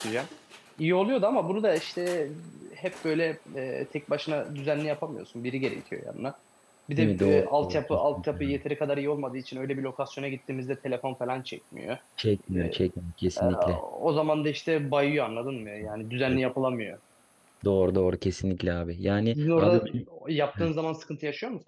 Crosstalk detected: Yes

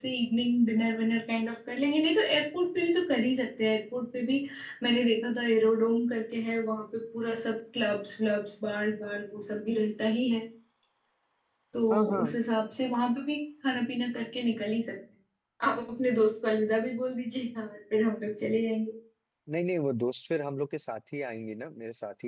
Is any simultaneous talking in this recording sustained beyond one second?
No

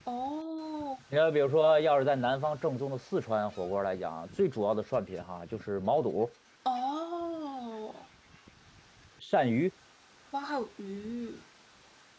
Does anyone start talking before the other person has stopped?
No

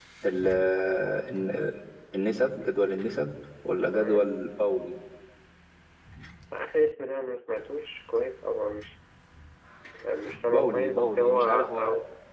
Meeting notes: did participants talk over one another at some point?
Yes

